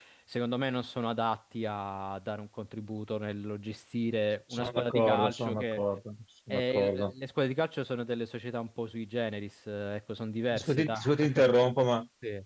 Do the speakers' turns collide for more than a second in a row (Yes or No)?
Yes